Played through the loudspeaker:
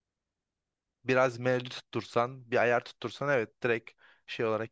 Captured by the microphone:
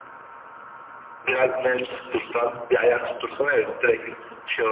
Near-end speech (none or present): none